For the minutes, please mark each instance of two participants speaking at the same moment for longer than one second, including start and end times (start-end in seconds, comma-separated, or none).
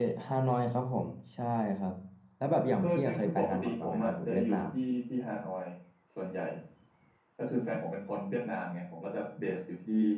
2.7-4.6